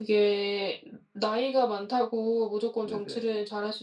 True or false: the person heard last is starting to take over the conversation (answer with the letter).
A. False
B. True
A